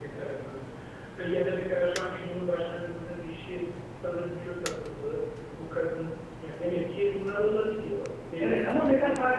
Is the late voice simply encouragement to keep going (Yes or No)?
No